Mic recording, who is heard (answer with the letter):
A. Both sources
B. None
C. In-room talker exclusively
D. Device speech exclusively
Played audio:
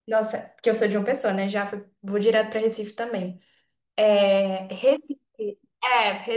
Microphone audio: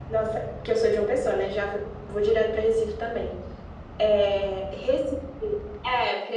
D